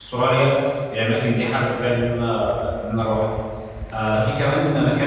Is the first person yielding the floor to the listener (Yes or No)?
No